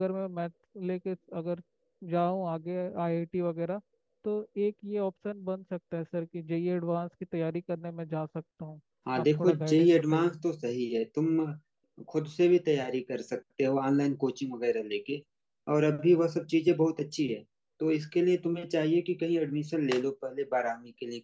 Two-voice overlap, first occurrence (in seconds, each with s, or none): 9.1 s